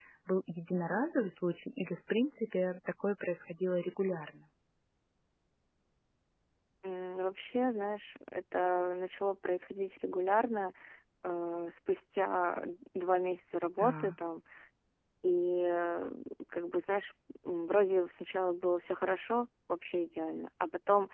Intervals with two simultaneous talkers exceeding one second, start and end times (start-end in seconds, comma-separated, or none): none